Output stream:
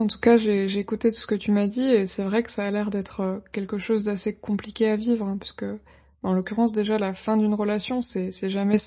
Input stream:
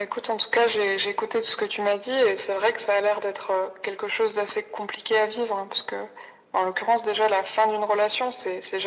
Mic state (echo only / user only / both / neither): echo only